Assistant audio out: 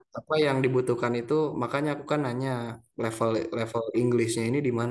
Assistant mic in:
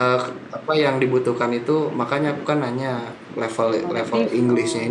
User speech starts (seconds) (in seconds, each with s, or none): 3.8 s